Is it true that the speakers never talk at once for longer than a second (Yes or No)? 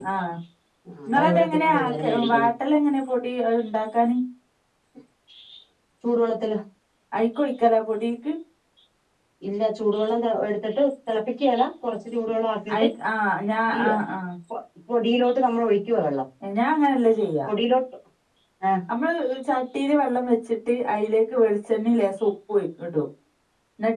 No